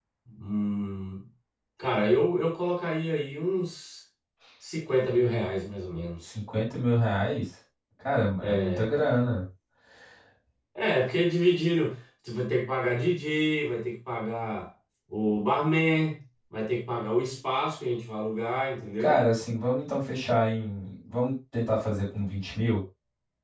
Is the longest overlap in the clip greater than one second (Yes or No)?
No